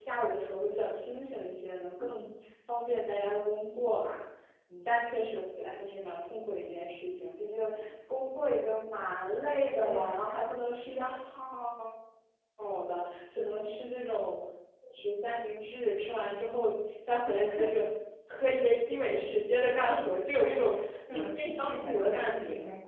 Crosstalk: present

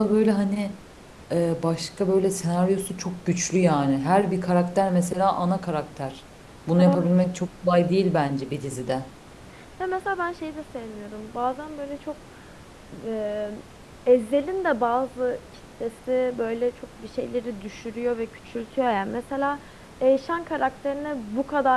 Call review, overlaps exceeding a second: none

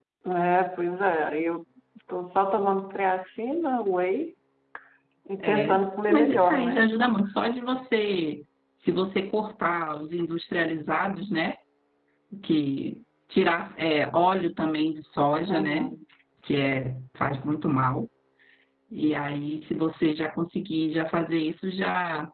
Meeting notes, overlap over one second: present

